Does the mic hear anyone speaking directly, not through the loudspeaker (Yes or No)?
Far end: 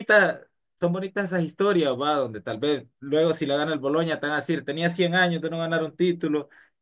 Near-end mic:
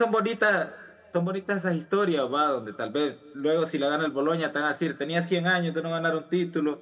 No